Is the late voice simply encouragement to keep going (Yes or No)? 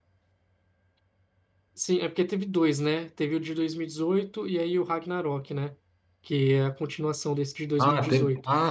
No